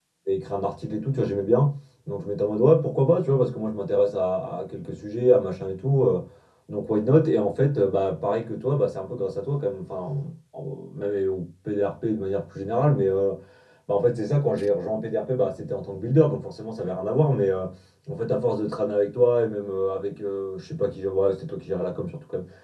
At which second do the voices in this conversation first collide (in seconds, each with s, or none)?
none